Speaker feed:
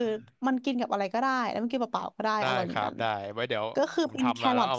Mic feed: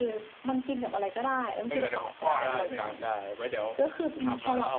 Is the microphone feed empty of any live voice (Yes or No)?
No